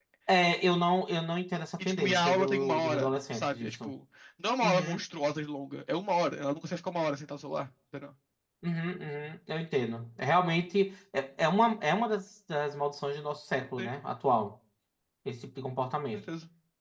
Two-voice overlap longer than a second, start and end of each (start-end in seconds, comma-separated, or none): 1.8-3.9